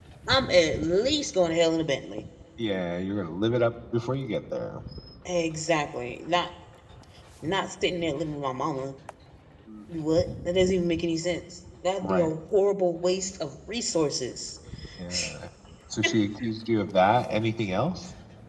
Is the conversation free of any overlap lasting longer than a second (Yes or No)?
Yes